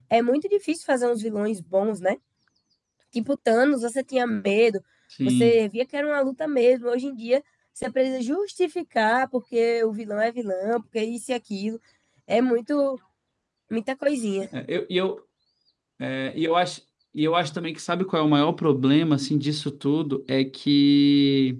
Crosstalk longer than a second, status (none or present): none